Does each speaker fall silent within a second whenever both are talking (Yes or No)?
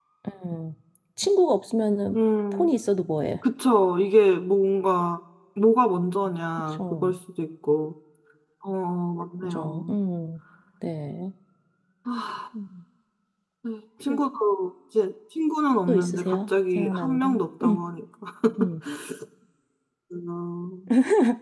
No